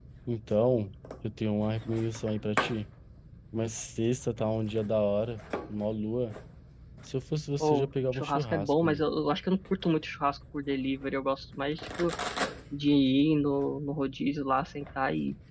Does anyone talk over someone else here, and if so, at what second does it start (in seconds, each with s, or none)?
7.6 s